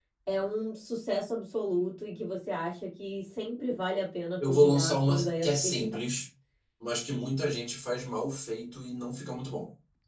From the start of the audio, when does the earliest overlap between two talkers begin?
4.4 s

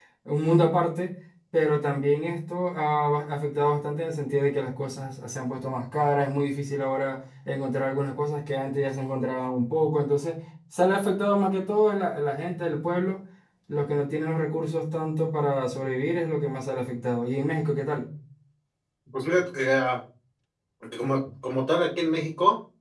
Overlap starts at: none

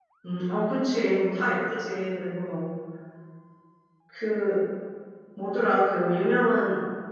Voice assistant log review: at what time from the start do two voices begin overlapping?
none

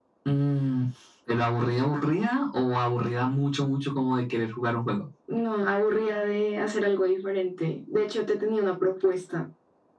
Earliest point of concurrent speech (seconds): none

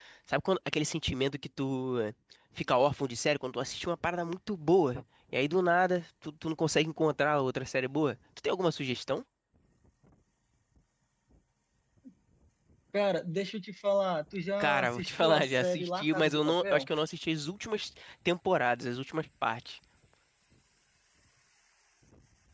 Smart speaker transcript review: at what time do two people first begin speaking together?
14.6 s

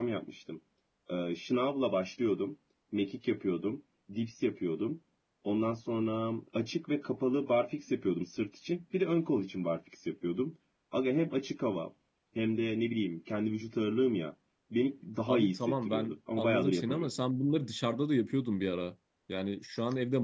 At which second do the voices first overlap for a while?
15.3 s

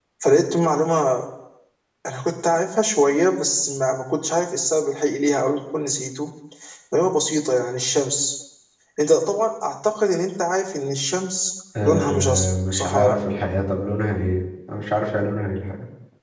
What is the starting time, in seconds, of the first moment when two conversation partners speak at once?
11.8 s

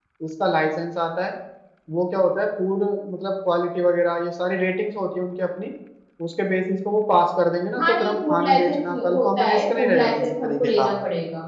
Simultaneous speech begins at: 7.8 s

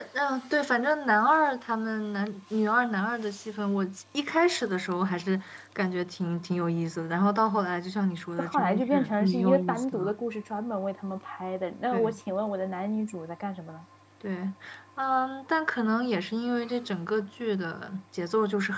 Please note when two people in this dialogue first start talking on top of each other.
8.4 s

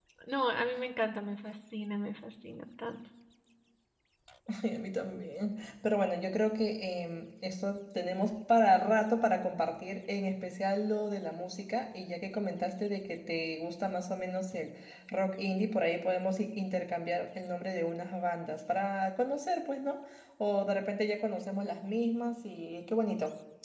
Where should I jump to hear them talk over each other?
none

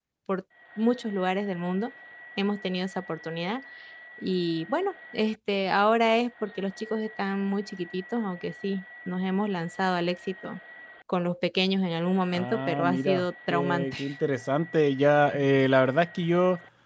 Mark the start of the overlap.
12.3 s

